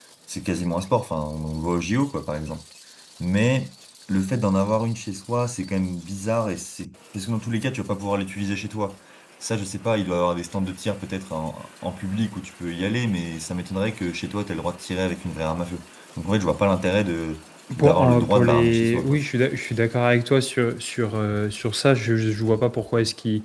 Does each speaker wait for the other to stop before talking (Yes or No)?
No